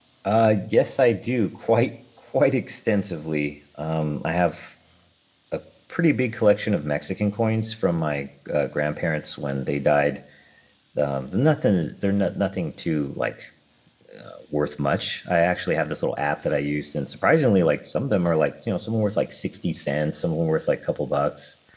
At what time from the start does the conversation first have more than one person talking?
none

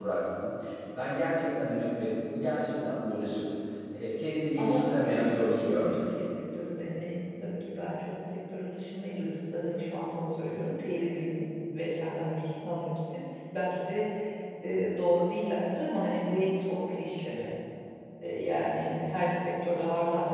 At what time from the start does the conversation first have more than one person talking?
4.6 s

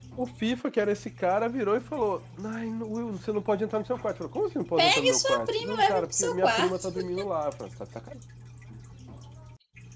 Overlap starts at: 4.8 s

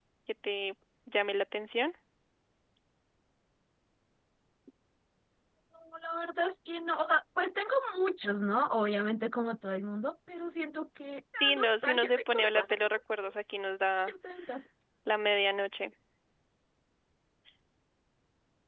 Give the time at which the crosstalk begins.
11.4 s

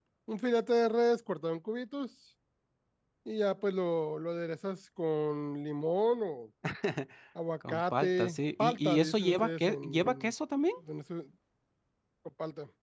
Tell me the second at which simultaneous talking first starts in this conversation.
7.7 s

